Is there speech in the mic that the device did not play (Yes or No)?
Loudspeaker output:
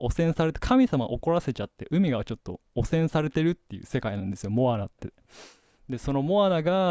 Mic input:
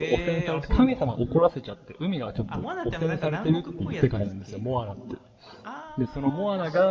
Yes